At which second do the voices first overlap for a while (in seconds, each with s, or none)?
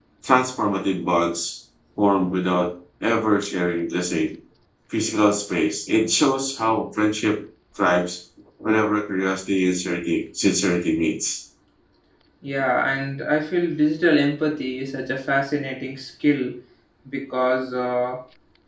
none